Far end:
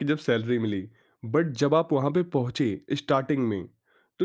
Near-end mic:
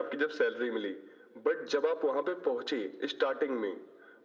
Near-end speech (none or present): none